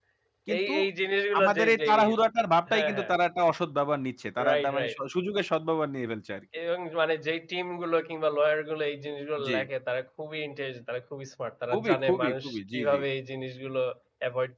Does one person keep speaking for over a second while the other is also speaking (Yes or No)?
Yes